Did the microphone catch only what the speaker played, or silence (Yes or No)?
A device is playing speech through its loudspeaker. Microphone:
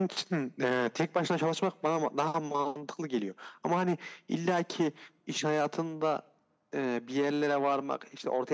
Yes